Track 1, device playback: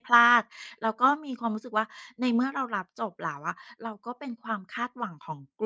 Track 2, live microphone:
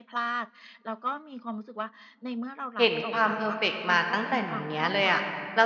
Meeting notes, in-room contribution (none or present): present